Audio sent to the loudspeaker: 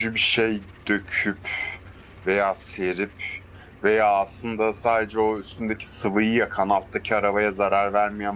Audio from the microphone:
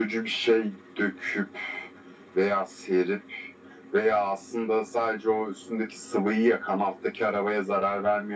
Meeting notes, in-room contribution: none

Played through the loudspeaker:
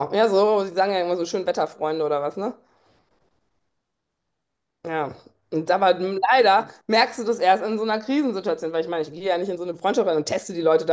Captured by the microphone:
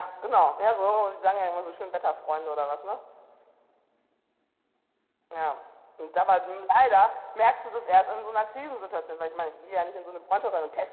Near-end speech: none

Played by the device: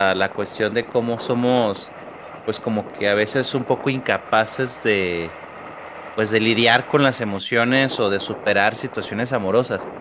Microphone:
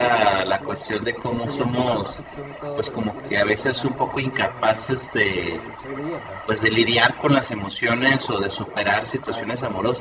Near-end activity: present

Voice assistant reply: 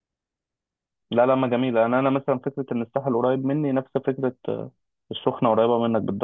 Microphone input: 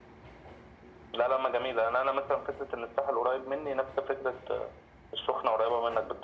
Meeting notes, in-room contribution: none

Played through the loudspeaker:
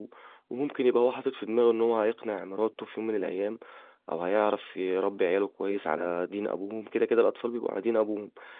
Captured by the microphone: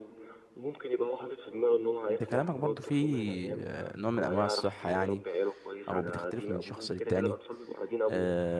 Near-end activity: present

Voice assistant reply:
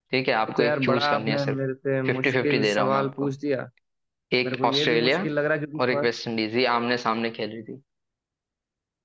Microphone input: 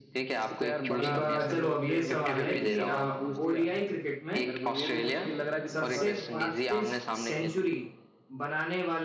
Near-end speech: present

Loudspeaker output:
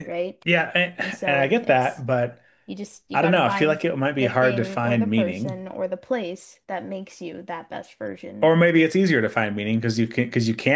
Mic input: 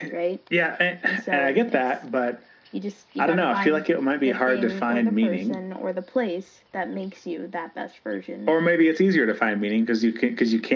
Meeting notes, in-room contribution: none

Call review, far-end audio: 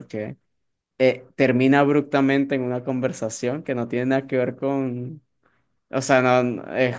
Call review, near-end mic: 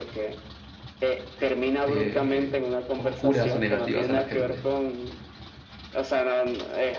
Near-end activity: present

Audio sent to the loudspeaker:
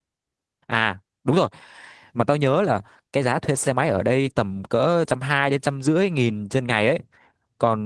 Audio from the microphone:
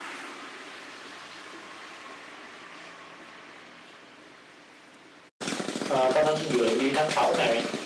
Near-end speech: present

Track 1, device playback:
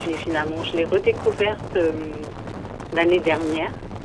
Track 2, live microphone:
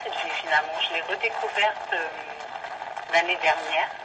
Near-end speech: none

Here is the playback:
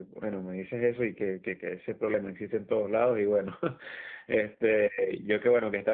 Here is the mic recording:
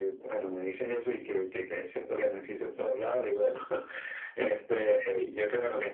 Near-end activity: none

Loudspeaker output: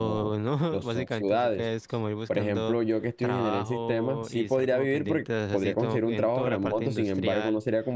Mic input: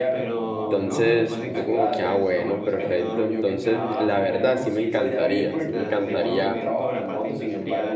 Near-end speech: present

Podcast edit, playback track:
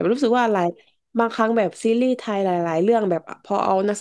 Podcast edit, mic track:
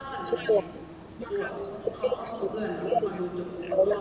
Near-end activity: present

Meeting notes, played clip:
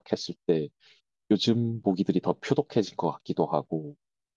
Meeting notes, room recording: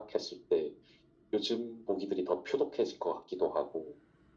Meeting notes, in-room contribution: none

